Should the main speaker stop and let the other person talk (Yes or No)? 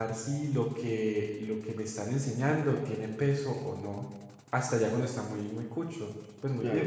Yes